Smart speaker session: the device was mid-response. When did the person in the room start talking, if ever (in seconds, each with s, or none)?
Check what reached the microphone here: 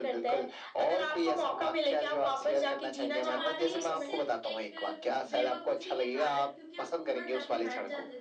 3.2 s